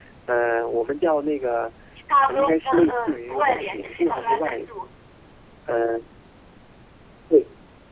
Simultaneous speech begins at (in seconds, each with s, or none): 2.3 s